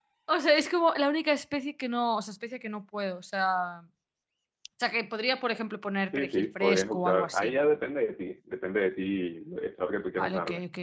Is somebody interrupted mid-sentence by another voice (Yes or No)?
Yes